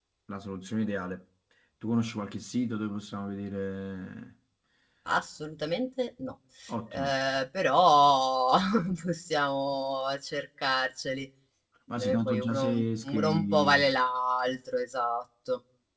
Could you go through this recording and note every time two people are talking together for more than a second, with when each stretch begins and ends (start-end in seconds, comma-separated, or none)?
12.0-13.9